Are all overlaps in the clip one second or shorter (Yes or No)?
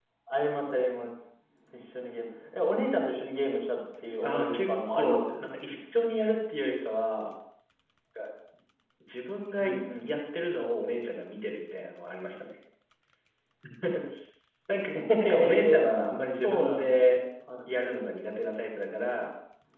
No